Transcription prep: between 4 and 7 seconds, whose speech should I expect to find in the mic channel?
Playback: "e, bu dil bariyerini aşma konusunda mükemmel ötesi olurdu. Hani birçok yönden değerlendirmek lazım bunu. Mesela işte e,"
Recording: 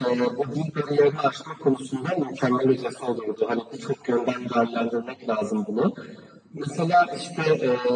echo only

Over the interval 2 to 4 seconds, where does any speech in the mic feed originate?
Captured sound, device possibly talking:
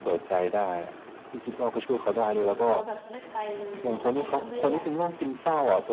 both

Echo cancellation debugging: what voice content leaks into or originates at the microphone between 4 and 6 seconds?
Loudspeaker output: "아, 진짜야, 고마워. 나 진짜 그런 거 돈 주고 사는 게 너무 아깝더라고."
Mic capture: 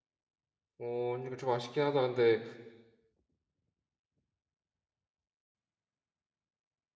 neither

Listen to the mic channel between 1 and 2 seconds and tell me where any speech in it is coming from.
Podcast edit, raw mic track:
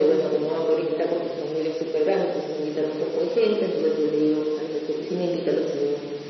echo only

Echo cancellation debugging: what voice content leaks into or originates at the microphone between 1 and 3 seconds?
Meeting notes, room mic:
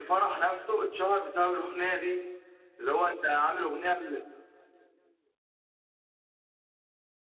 echo only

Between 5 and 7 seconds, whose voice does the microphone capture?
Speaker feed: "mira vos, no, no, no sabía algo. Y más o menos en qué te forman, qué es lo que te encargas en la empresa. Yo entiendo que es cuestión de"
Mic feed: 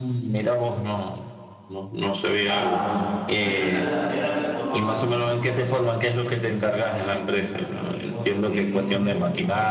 both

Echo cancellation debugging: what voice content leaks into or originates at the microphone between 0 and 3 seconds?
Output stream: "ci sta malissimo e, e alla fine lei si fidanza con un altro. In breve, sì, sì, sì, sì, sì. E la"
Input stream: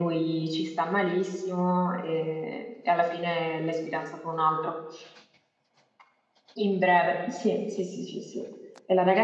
echo only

